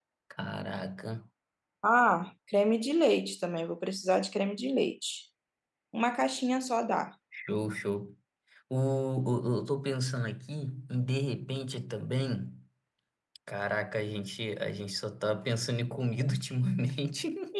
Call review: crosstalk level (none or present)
none